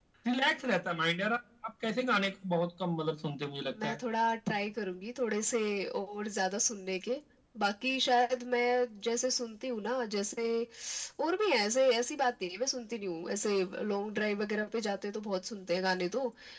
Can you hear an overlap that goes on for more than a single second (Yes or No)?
No